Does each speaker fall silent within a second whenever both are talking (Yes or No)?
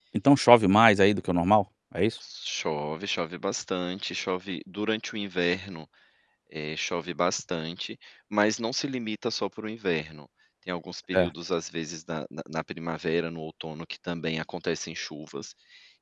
Yes